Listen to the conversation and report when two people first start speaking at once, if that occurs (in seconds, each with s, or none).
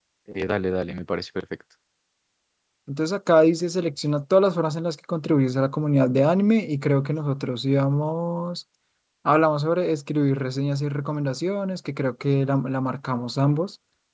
none